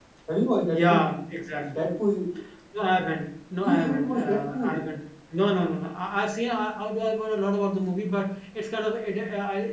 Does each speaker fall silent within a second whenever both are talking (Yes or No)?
No